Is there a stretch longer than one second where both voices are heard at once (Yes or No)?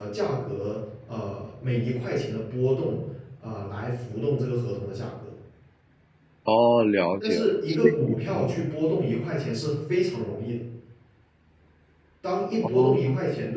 Yes